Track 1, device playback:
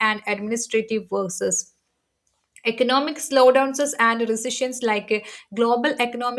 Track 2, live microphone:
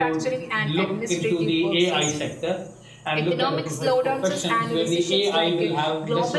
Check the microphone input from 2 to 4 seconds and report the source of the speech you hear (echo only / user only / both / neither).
both